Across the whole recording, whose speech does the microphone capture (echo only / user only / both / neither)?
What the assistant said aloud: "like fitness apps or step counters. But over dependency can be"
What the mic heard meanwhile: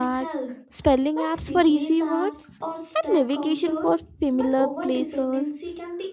both